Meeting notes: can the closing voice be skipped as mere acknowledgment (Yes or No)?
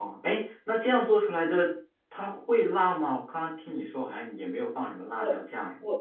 No